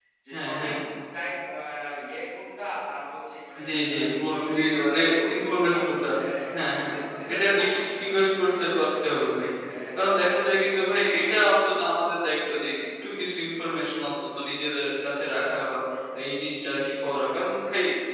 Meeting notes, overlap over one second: present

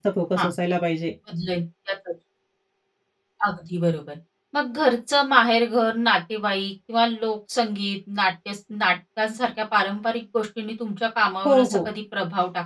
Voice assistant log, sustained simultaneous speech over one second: none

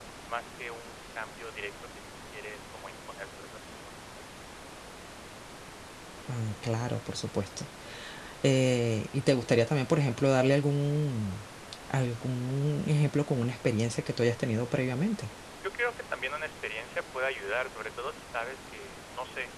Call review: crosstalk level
none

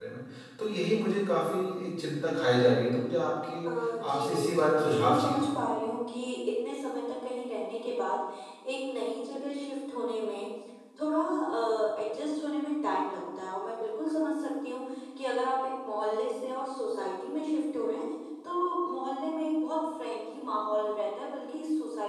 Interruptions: present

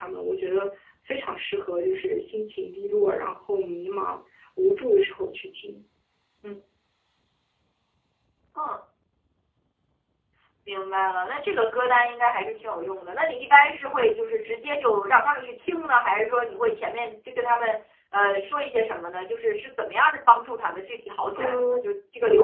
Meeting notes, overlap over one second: none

